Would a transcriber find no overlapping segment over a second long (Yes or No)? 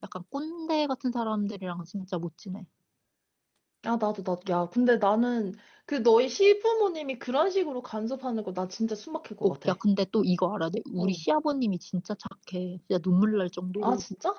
Yes